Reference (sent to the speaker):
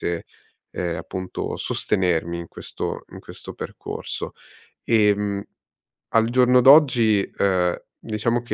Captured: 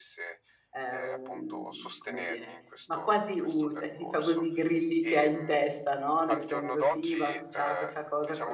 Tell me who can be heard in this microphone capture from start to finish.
both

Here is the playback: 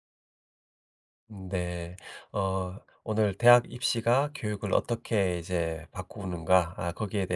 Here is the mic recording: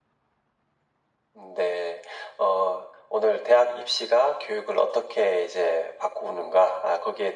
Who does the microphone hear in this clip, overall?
echo only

